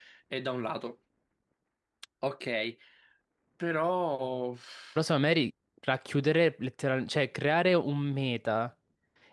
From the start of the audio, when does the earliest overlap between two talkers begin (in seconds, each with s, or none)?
none